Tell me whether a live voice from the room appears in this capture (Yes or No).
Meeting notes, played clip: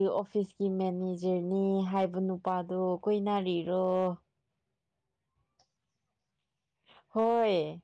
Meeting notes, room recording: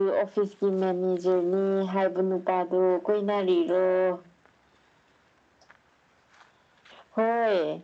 No